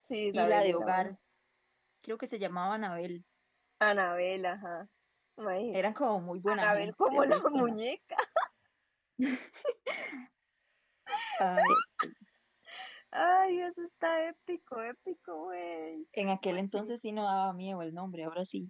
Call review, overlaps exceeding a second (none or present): present